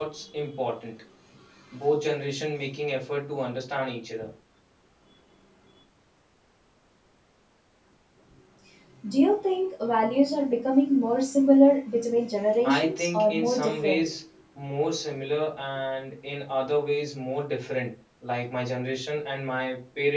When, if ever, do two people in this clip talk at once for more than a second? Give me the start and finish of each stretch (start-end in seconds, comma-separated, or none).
12.8-14.1